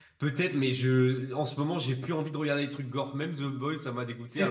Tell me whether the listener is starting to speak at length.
Yes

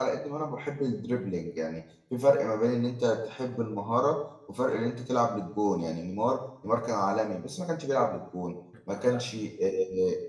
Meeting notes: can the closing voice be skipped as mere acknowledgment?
Yes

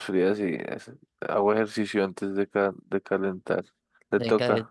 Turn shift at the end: Yes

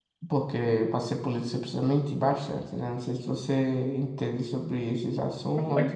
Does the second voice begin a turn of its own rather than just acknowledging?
Yes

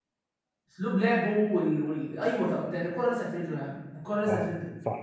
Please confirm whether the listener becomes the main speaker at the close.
Yes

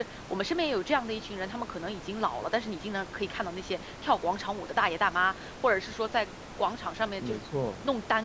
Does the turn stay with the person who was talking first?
Yes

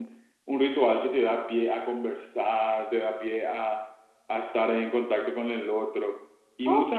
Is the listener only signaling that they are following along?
No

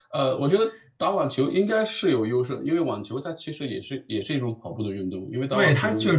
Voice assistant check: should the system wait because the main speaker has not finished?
No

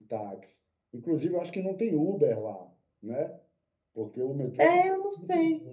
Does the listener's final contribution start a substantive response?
Yes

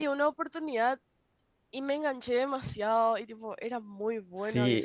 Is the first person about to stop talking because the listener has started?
Yes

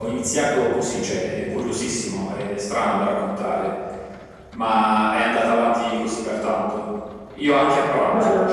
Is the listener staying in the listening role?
Yes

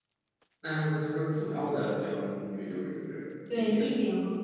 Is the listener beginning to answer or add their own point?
Yes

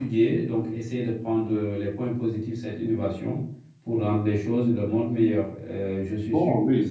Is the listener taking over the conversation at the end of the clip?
No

